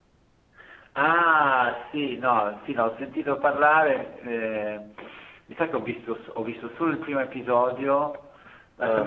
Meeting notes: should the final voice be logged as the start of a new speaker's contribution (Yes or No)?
No